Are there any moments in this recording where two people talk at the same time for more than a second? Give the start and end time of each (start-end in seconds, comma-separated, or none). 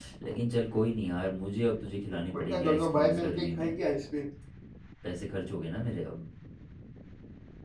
2.3-3.7